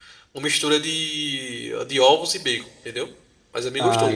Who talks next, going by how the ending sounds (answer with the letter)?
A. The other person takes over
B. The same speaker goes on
A